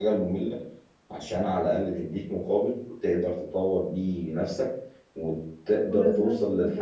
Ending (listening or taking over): listening